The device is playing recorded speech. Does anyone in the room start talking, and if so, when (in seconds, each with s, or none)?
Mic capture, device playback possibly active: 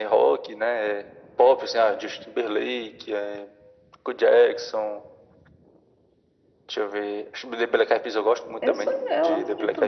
8.6 s